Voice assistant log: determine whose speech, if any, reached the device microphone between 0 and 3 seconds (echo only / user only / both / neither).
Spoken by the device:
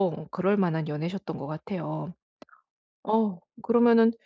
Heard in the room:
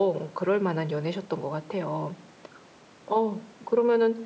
echo only